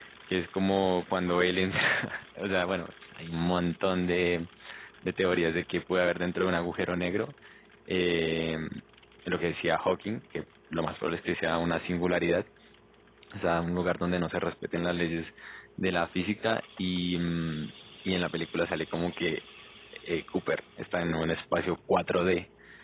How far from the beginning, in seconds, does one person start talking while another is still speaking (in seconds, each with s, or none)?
none